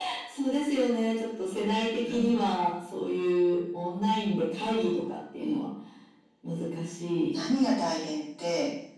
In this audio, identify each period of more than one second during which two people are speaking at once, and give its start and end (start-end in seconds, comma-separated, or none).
none